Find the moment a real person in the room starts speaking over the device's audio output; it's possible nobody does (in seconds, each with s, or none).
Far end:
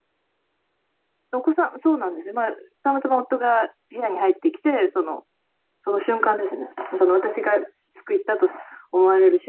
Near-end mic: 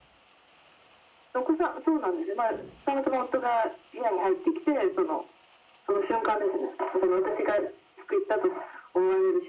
none